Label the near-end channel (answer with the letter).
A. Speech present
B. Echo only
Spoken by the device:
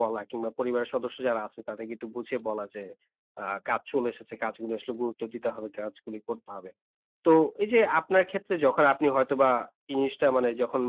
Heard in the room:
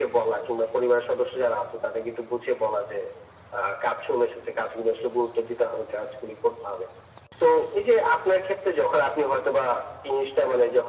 B